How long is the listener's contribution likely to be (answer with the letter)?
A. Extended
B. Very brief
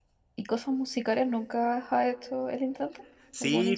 A